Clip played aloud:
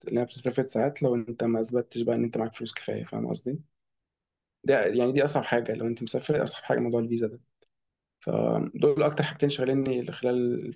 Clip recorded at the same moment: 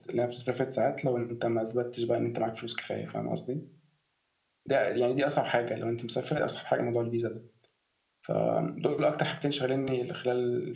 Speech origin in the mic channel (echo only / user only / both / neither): echo only